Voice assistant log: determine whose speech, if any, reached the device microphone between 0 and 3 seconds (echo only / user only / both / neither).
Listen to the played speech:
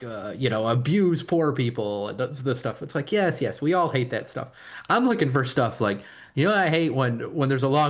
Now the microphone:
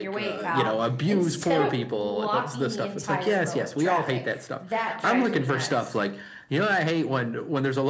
both